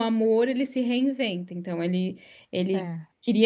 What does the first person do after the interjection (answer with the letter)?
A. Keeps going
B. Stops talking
A